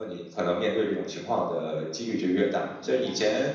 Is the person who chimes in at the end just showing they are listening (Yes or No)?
Yes